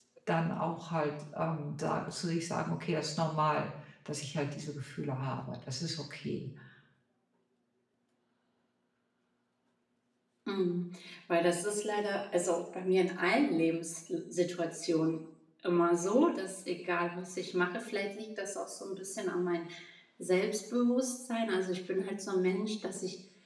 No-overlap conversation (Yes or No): Yes